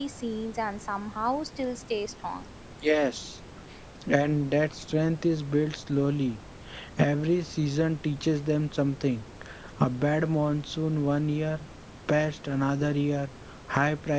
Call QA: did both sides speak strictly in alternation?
Yes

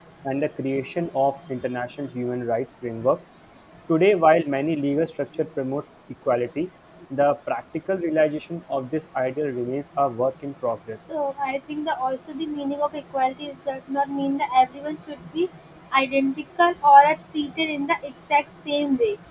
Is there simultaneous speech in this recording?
No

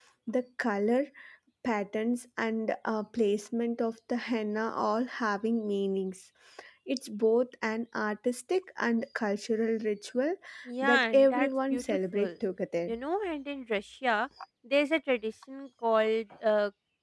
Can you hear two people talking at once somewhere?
Yes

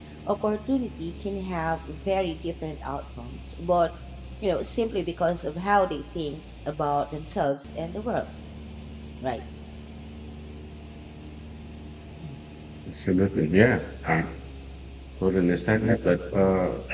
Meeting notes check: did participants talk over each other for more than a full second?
No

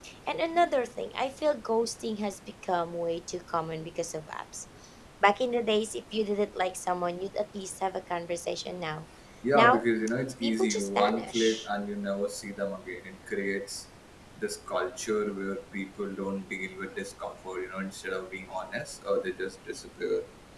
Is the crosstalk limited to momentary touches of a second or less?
No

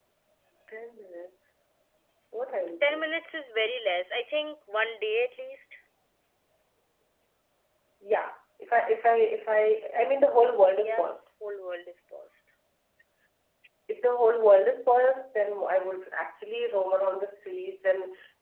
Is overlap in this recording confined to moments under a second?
Yes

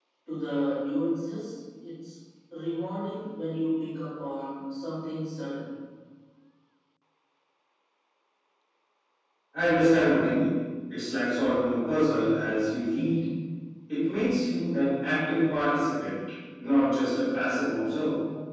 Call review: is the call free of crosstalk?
Yes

